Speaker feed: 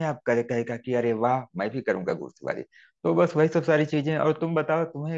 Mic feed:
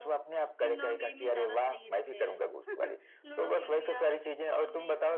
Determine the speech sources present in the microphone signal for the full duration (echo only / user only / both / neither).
both